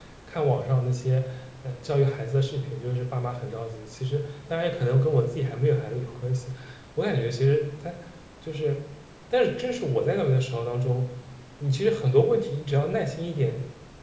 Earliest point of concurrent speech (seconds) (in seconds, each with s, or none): none